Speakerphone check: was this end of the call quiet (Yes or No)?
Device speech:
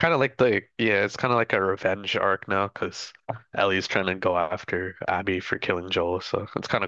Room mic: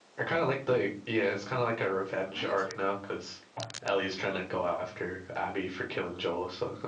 No